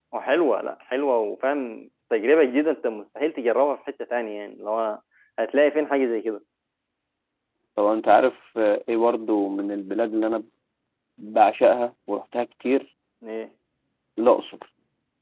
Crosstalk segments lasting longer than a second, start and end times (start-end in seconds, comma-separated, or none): none